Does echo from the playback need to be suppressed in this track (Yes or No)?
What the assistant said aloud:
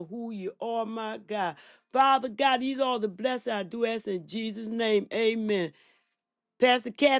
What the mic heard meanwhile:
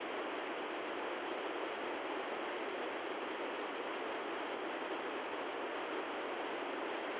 No